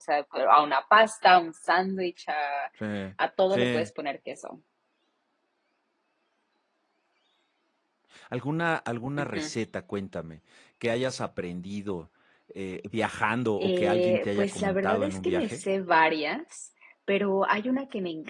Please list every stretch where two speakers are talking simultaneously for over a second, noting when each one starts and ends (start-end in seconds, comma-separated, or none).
13.6-15.6